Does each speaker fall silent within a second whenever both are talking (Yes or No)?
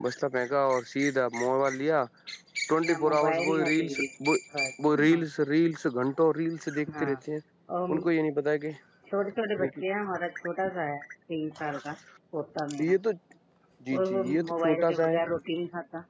No